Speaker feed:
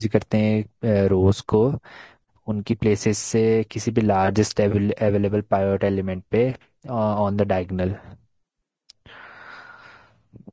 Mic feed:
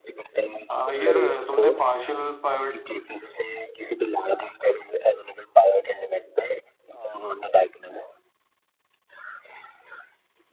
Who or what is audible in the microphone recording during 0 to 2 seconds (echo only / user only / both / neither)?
both